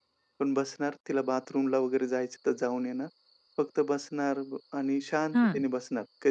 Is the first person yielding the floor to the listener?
No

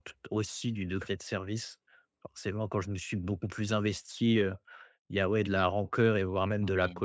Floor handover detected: No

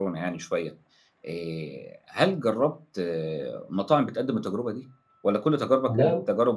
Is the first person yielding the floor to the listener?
No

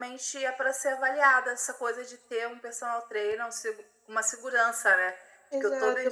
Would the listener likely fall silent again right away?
No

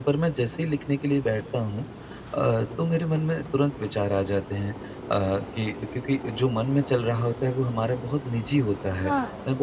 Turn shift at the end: No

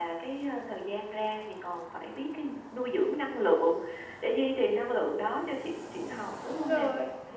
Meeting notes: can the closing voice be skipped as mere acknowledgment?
No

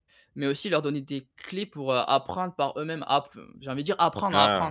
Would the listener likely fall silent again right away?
No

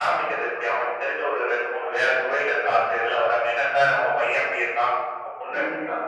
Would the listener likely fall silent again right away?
No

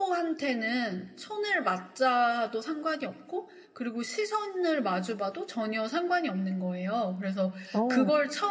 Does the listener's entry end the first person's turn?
No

